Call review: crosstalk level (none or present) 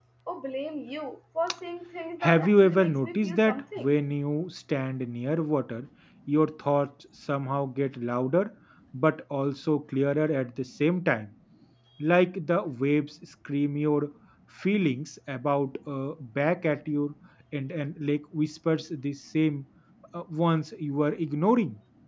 present